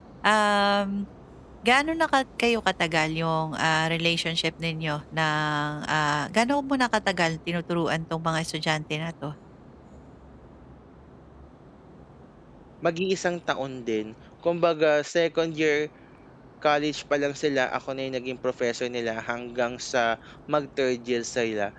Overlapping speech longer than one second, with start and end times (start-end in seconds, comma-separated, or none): none